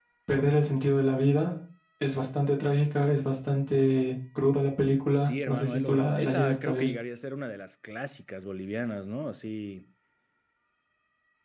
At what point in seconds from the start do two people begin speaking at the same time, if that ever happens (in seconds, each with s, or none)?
5.2 s